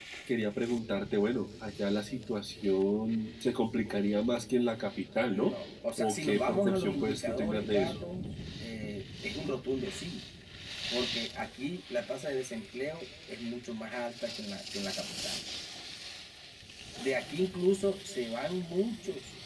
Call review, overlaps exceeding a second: present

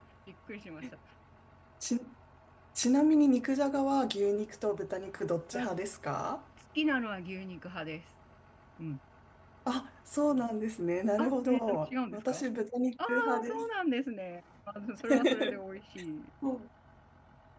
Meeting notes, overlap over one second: present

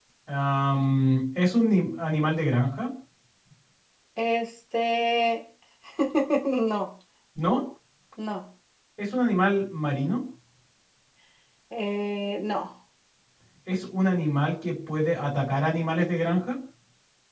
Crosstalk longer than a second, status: none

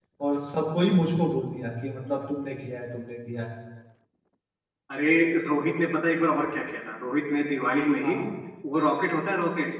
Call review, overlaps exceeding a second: none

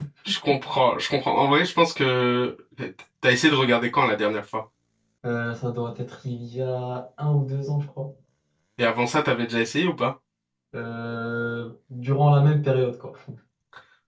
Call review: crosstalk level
none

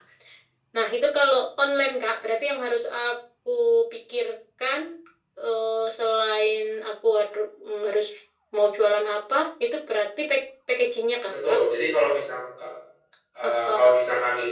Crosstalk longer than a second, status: none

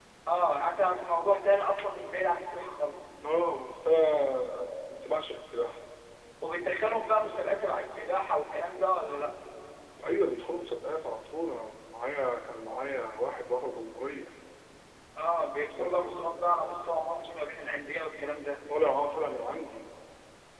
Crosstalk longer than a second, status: none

